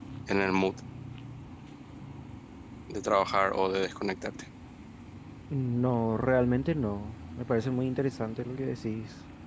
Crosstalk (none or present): none